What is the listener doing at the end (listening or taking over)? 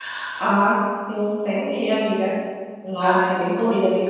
listening